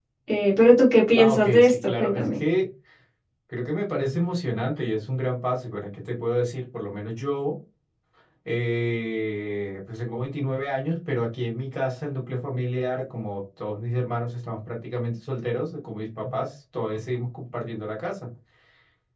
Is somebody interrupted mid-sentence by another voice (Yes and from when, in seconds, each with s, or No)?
Yes, from 1.2 s